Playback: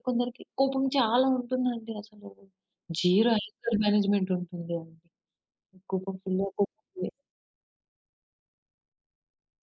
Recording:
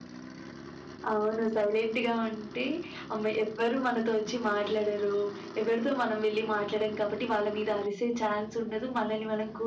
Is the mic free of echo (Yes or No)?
Yes